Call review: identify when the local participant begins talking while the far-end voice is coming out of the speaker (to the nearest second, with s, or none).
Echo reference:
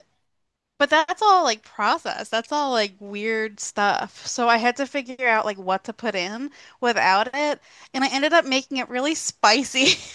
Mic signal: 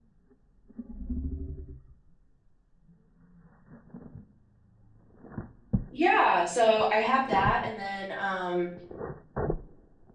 6 s